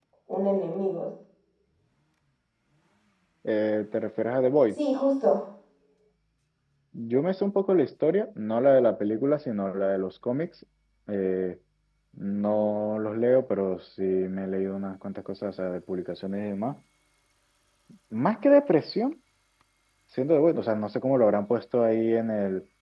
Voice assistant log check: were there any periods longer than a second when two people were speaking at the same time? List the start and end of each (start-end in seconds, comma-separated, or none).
none